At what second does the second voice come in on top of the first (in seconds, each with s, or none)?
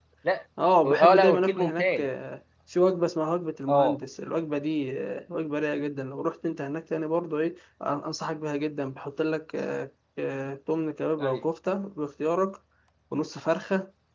0.8 s